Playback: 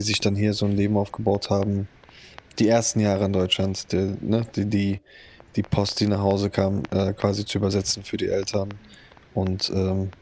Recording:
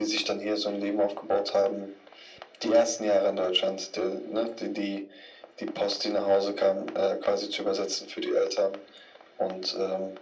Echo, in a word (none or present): present